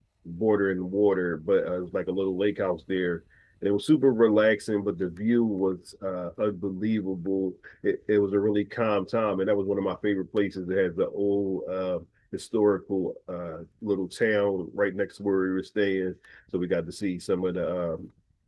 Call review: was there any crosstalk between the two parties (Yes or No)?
No